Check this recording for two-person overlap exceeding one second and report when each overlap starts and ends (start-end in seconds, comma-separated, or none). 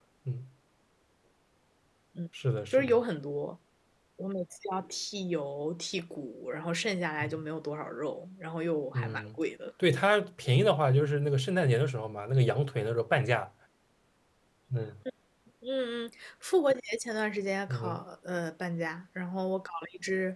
none